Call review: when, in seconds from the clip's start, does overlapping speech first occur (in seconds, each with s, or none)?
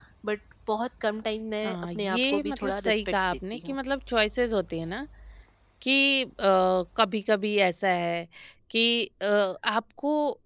1.6 s